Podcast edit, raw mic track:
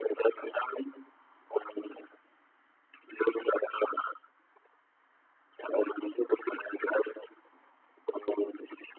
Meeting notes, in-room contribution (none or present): none